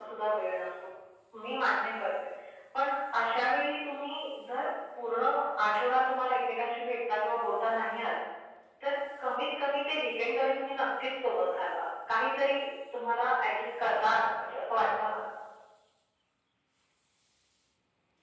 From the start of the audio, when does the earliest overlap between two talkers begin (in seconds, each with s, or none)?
none